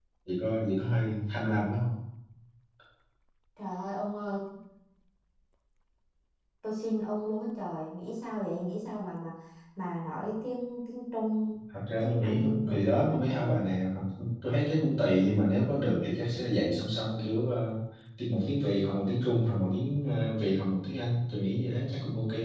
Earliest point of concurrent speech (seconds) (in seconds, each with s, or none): 12.0 s